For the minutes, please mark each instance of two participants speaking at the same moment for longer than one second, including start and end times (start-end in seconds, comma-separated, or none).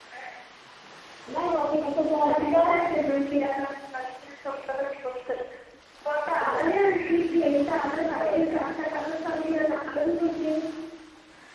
none